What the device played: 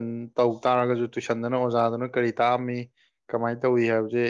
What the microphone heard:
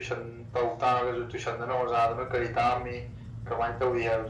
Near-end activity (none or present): none